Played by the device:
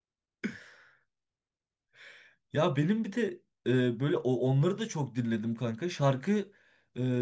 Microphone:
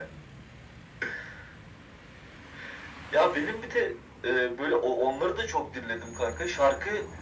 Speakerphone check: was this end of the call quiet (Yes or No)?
Yes